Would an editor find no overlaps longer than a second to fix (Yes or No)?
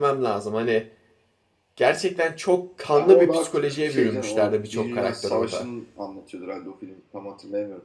No